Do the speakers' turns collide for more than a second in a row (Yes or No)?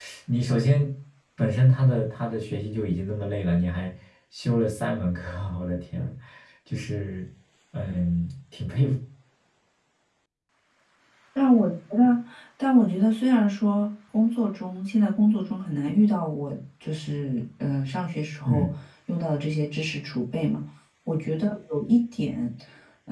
No